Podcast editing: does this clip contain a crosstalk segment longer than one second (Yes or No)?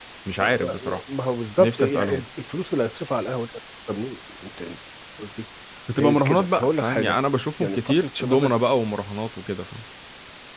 Yes